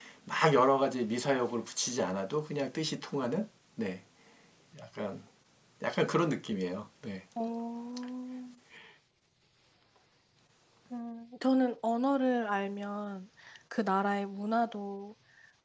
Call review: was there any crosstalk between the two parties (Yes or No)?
No